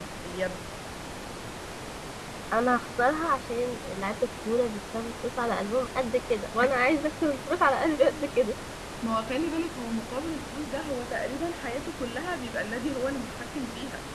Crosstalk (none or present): none